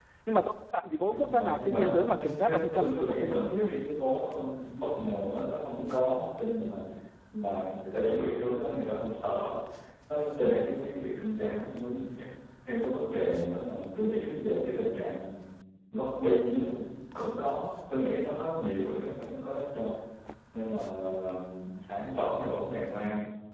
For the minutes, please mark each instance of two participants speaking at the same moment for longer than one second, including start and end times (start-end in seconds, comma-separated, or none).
1.1-3.7